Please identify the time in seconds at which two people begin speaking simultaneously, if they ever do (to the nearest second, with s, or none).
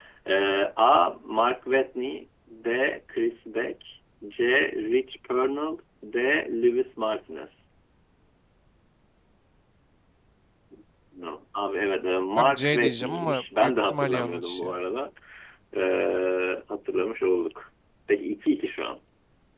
12 s